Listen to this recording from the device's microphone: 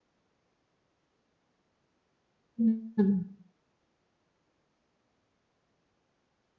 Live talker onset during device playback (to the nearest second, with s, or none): 3 s